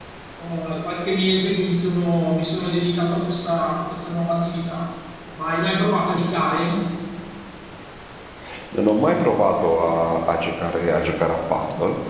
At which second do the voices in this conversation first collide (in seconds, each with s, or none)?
none